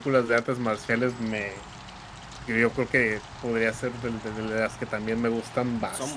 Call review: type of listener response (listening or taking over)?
listening